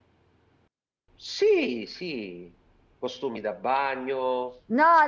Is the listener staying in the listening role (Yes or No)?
No